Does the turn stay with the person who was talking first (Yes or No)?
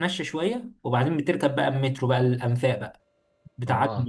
No